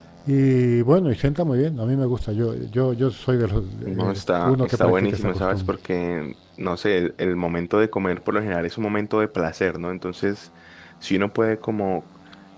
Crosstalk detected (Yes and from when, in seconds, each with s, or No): Yes, from 3.9 s